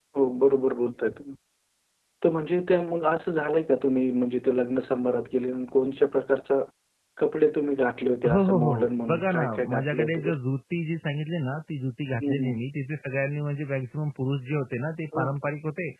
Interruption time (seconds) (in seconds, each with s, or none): 8.3 s